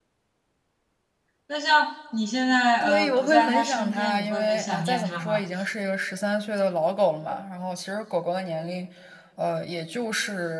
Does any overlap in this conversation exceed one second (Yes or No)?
Yes